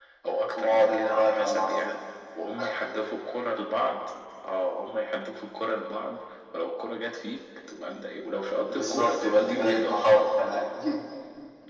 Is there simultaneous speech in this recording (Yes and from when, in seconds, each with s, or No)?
Yes, from 0.6 s